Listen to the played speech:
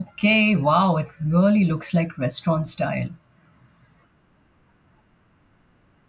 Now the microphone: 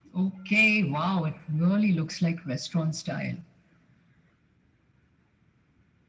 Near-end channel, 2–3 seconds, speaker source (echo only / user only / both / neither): echo only